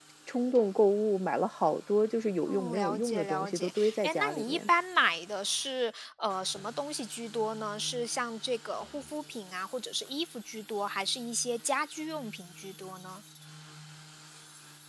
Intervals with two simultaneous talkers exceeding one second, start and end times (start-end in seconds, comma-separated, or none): 2.5-4.7